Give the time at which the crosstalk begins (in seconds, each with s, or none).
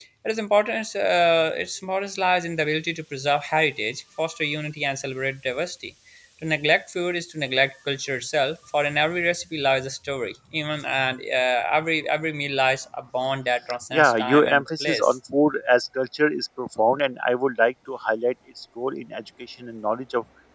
13.9 s